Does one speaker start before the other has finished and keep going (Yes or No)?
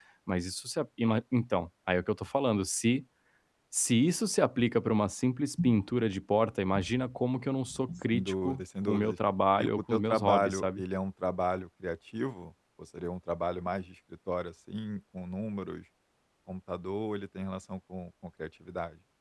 Yes